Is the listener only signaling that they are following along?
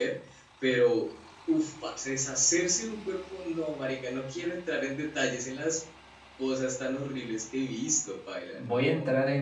No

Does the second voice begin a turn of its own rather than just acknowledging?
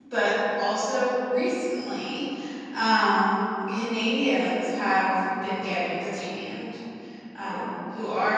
No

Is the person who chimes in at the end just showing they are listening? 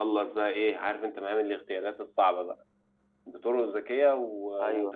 Yes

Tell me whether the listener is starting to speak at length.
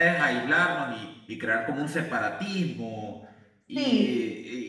No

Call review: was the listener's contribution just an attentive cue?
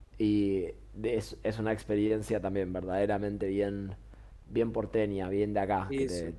Yes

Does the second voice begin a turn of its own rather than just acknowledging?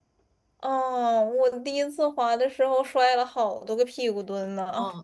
Yes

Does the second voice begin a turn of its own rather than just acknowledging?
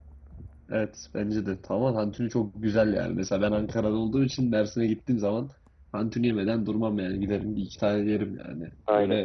Yes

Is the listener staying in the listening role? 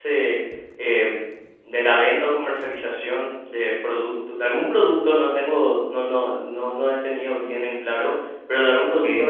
Yes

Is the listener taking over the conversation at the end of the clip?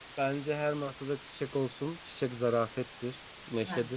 No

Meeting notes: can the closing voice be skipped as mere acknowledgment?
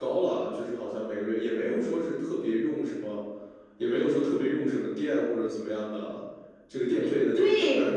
Yes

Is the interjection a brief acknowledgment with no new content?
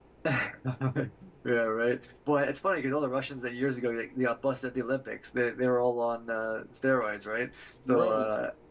Yes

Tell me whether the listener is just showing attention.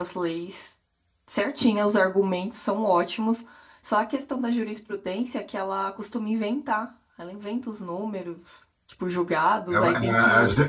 No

